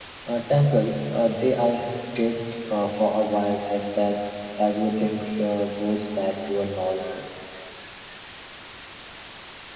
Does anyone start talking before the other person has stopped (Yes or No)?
No